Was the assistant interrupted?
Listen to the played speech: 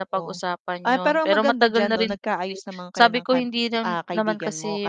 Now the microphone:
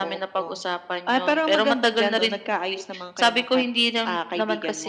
No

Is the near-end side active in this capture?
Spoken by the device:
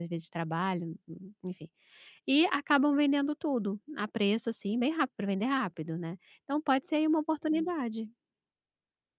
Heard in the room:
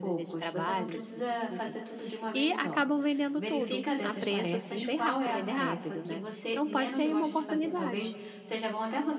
Yes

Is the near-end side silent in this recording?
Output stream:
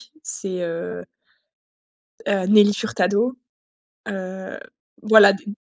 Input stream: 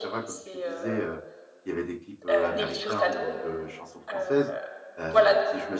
No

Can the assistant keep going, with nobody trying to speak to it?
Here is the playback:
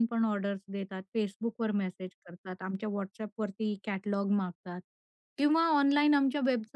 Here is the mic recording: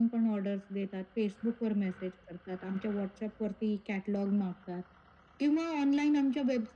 Yes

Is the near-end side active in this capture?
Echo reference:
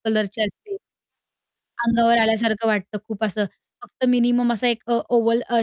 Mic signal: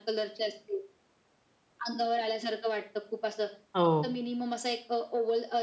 Yes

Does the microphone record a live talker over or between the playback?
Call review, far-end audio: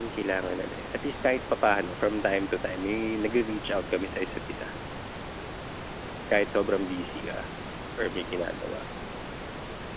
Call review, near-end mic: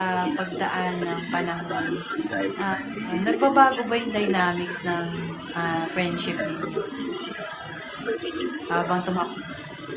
Yes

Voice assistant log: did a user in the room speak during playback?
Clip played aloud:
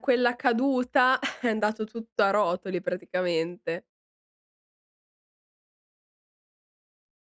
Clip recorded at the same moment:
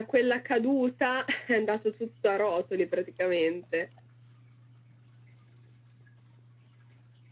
No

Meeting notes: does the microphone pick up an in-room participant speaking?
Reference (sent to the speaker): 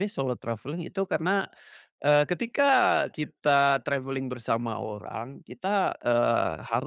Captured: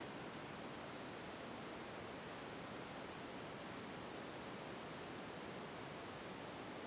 No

